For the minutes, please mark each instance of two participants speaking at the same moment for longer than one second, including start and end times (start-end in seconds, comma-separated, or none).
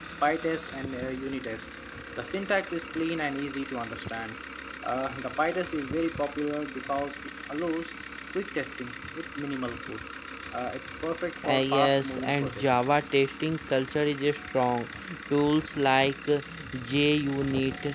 11.5-12.8